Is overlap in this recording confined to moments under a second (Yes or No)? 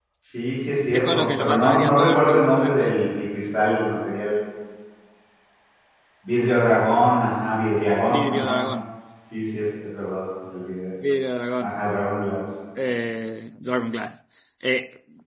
No